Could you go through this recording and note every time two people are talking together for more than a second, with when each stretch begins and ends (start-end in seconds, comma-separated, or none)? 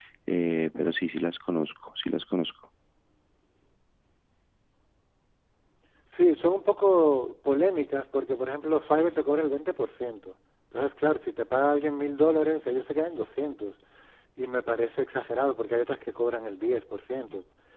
none